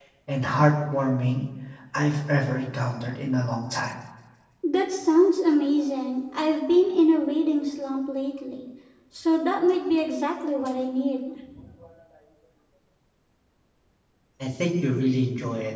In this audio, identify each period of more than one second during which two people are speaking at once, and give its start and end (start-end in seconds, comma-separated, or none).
none